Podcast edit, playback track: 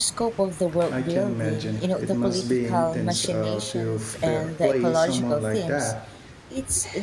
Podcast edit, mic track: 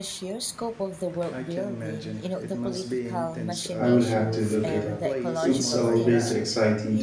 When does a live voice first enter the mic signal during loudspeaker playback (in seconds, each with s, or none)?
3.8 s